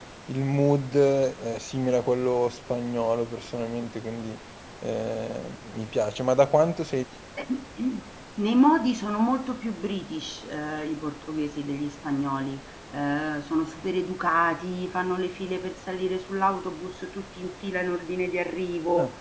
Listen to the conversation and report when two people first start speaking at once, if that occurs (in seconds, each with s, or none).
none